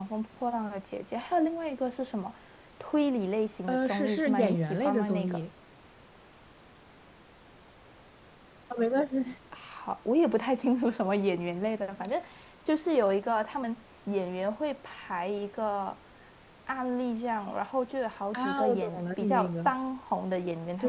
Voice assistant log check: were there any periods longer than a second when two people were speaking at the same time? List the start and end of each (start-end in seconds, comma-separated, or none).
3.7-5.4, 18.3-19.7